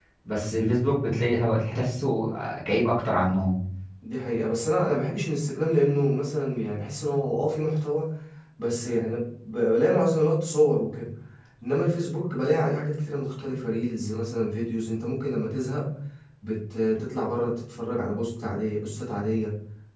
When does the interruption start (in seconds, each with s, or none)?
none